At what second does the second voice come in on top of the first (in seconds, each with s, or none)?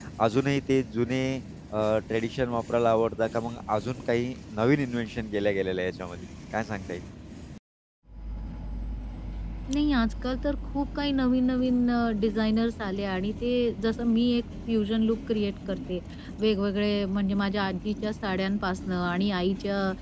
none